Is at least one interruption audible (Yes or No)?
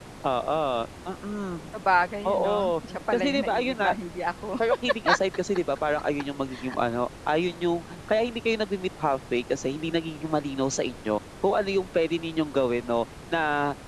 Yes